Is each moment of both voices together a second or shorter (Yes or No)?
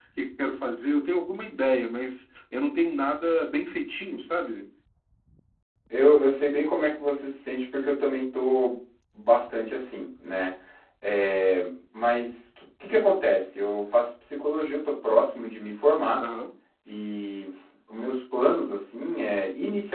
Yes